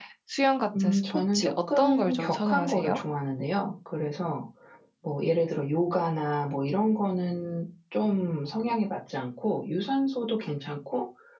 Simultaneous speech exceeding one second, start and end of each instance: 0.8-3.0

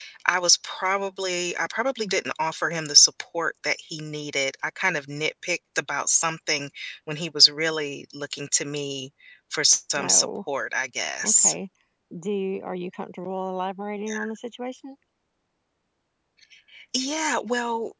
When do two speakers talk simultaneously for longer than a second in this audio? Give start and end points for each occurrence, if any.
none

